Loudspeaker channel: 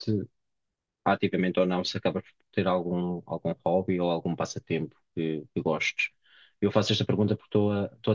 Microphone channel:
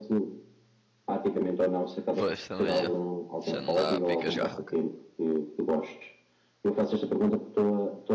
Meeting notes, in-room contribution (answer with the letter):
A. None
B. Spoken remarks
B